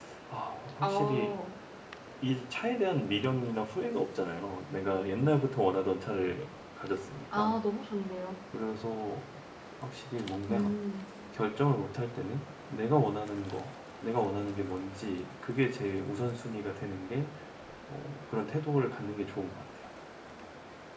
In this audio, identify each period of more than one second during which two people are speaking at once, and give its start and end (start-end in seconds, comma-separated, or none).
none